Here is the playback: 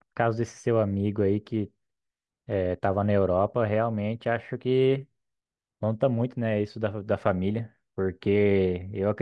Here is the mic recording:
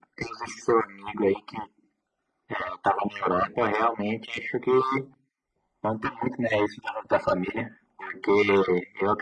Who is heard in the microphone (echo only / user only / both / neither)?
echo only